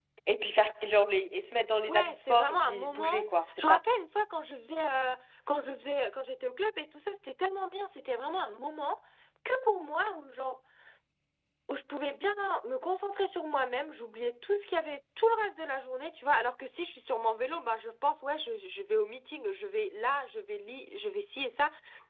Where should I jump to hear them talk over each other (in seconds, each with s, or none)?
1.9 s